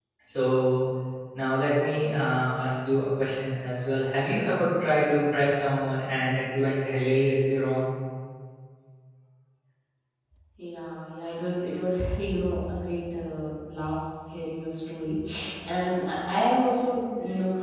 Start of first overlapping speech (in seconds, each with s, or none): none